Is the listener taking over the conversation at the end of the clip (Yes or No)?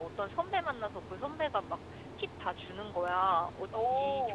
No